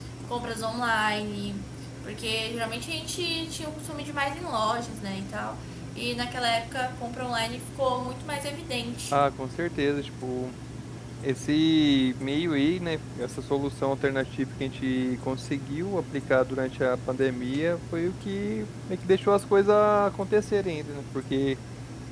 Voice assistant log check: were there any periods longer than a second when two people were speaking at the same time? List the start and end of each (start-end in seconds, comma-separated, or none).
none